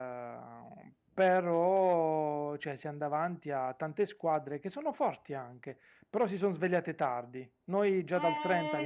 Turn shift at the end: Yes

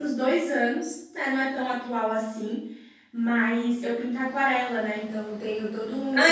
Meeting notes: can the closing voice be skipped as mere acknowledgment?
No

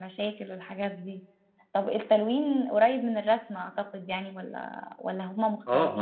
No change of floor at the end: No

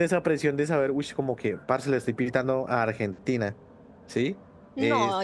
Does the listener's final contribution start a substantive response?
Yes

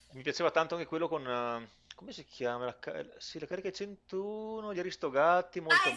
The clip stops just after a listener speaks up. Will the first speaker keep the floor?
No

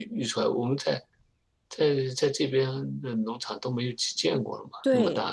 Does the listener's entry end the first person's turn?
Yes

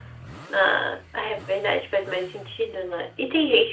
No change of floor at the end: Yes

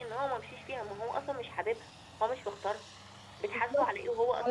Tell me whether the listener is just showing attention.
No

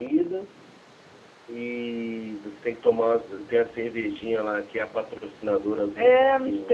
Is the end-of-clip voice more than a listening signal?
Yes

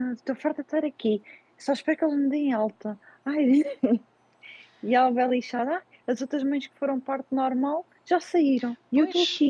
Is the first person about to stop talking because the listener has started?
Yes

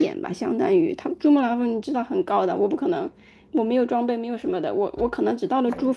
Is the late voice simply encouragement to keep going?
Yes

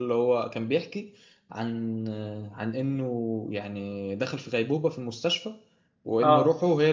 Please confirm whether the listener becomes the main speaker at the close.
No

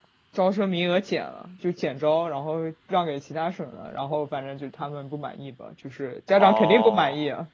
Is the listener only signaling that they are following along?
No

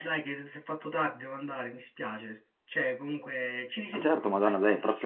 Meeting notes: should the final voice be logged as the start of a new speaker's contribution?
Yes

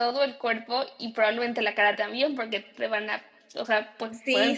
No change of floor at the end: No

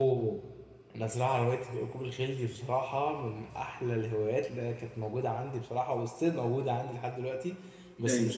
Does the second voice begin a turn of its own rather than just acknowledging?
No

